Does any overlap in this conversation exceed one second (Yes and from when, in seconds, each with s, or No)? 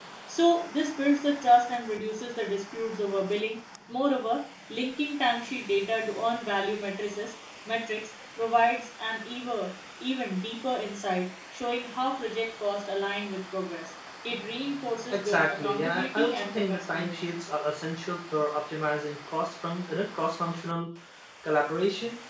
Yes, from 15.1 s